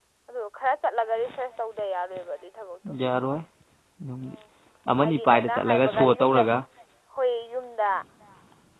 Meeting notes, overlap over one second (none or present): present